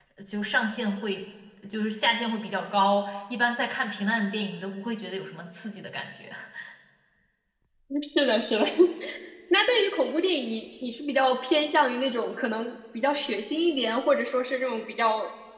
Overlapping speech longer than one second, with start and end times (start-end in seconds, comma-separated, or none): none